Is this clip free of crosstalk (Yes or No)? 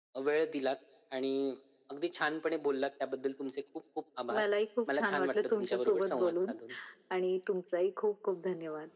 No